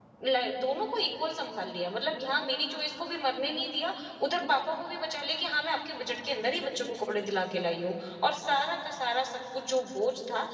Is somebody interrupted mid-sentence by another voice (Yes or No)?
No